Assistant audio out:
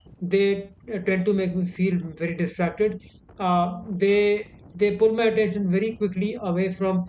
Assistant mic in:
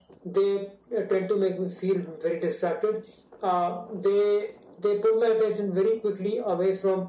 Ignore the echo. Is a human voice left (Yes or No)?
No